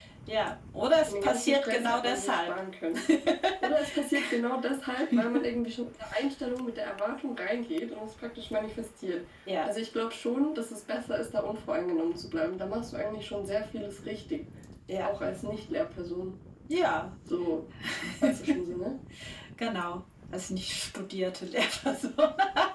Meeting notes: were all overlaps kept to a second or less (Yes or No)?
No